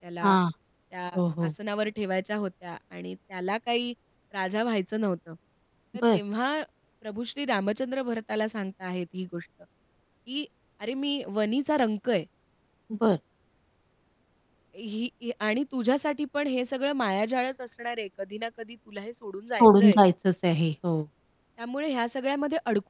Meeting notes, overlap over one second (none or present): none